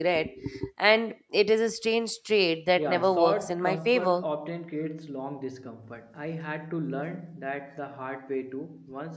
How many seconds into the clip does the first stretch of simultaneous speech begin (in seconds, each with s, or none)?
2.8 s